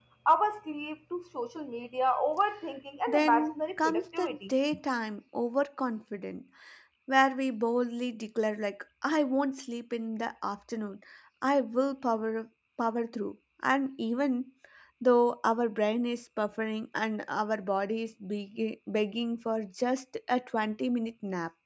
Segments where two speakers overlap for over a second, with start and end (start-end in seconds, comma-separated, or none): 3.1-4.5